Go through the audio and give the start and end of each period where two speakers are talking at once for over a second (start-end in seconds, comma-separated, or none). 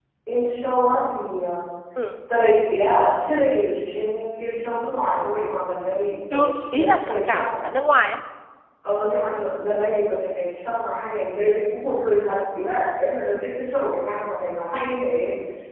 6.3-7.5